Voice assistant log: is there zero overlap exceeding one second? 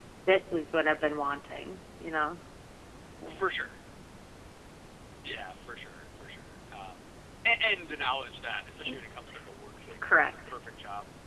Yes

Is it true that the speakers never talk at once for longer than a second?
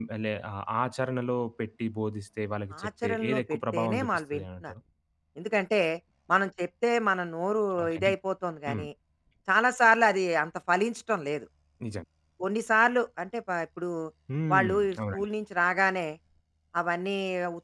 No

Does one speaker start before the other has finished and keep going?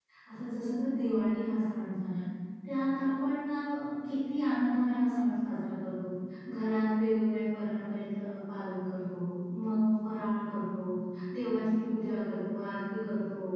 No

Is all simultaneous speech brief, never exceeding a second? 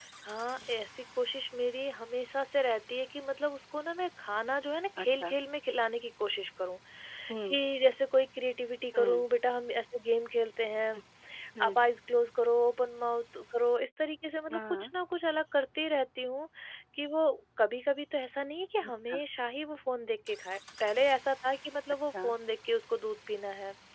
Yes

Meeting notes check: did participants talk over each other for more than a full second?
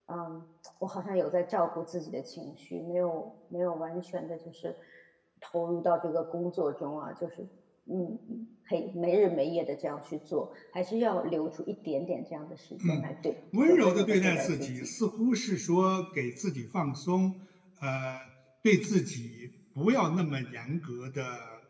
Yes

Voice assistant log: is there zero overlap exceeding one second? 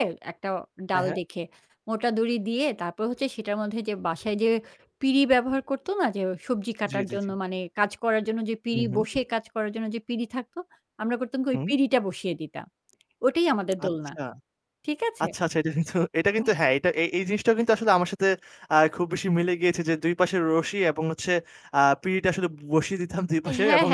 Yes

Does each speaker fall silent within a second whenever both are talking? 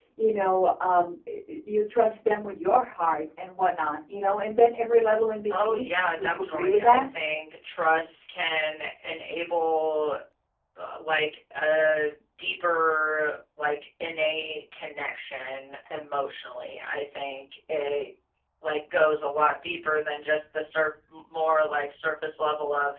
No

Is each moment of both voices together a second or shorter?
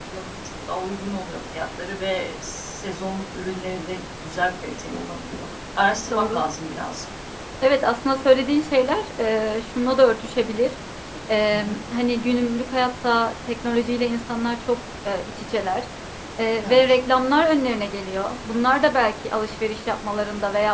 Yes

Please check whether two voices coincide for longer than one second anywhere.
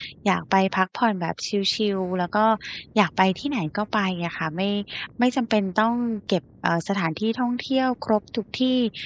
No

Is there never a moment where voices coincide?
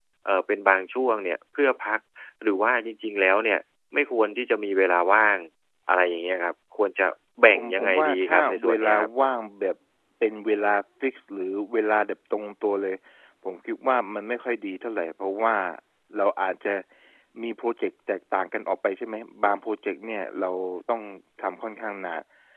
No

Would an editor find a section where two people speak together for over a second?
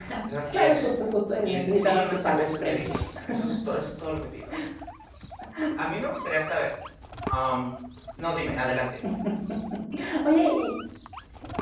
Yes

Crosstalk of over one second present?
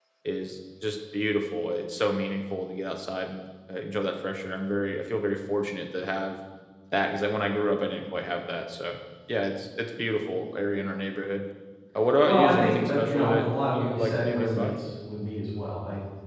Yes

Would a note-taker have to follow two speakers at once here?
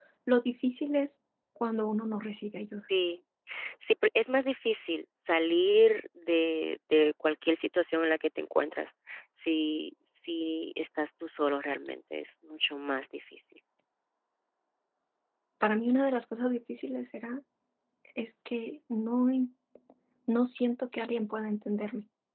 No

